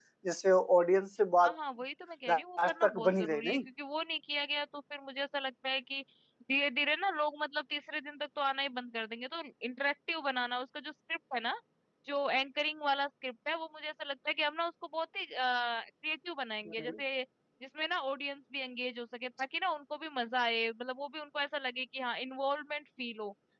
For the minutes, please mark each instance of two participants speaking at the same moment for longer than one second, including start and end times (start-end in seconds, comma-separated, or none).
2.3-3.6